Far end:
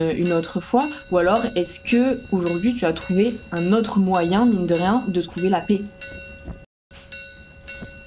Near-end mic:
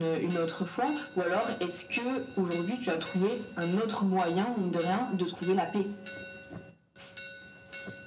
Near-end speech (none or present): none